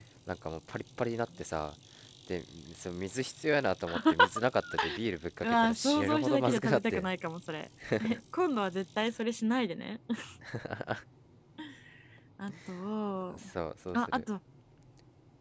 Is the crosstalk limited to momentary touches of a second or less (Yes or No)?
No